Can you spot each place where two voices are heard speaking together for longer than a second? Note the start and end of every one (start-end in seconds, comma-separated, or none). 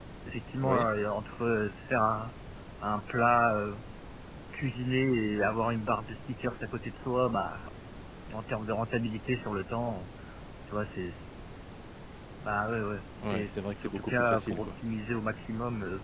13.2-14.7